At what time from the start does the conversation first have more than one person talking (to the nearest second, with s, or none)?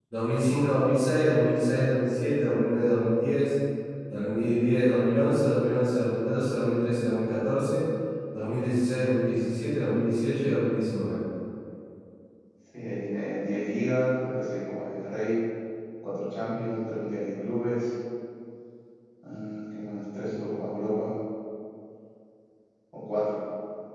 none